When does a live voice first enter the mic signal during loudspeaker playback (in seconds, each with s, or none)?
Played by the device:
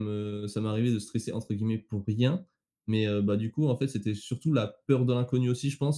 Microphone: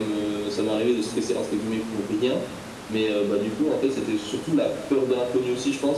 none